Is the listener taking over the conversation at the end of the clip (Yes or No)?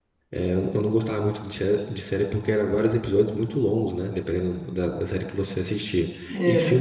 No